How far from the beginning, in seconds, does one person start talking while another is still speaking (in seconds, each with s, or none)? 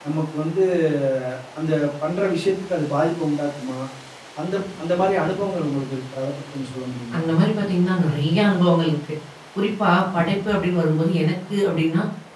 none